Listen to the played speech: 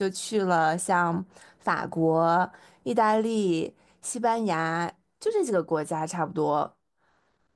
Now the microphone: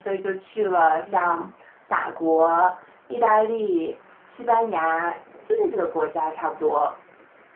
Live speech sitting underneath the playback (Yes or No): Yes